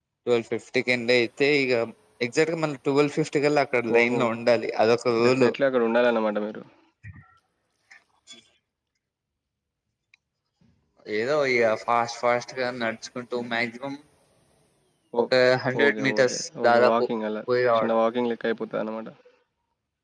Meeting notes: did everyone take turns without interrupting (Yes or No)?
No